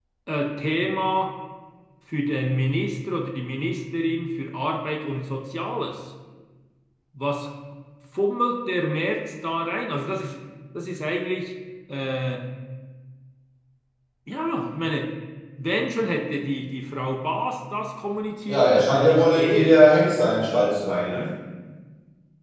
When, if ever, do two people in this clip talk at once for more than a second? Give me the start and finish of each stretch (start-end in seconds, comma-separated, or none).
18.5-19.8